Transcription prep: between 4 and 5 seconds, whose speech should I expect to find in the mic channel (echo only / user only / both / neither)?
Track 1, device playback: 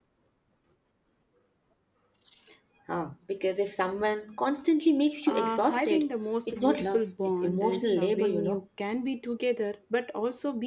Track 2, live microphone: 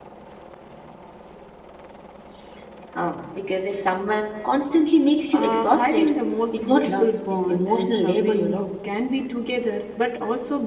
echo only